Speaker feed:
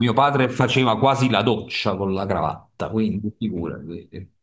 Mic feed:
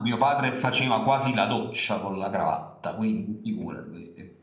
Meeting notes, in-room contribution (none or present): none